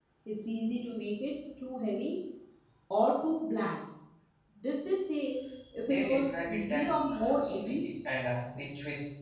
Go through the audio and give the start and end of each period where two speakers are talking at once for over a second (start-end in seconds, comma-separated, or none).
5.8-7.8